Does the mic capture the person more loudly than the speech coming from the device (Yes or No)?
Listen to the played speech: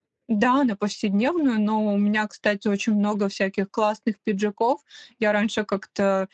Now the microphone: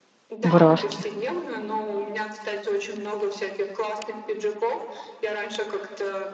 Yes